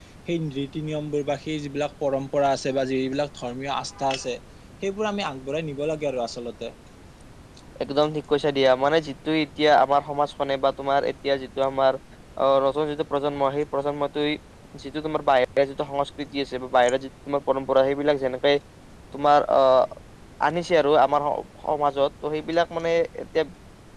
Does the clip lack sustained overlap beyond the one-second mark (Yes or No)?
Yes